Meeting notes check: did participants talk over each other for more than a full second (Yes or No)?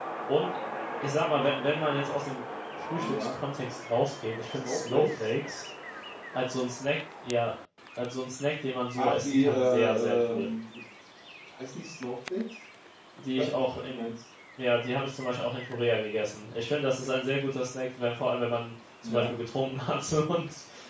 Yes